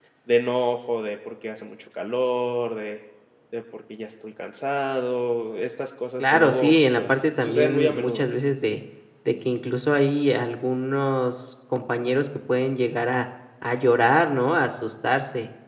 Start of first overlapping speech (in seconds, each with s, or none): 6.2 s